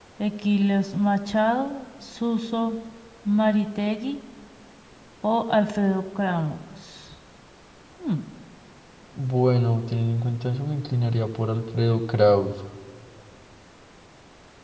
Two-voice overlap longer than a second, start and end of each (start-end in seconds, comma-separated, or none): none